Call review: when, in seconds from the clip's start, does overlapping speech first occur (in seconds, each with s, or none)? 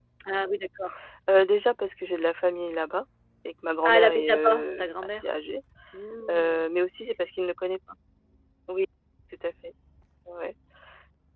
3.9 s